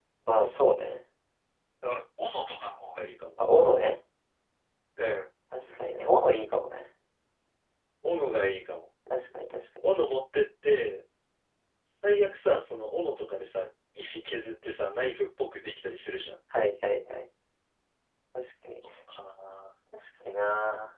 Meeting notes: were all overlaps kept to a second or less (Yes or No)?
Yes